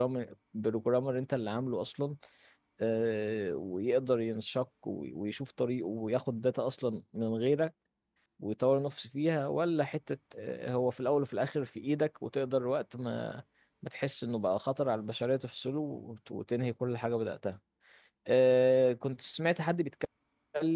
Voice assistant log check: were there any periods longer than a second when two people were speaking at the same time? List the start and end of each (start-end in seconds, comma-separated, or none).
none